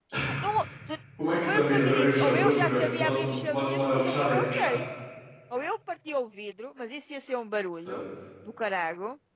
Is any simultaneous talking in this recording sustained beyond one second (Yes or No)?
Yes